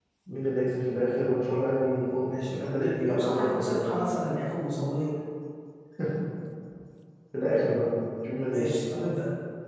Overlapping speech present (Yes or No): Yes